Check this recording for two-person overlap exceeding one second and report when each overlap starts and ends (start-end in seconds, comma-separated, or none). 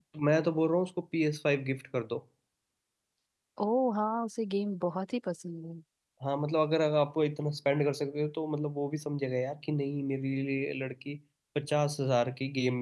none